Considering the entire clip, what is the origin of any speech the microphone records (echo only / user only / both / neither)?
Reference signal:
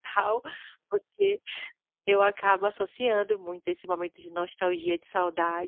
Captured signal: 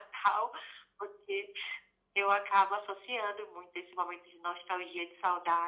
echo only